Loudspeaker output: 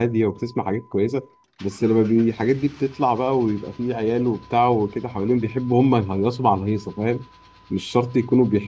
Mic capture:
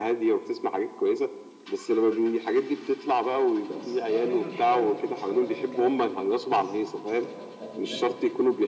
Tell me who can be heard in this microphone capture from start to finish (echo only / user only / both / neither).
both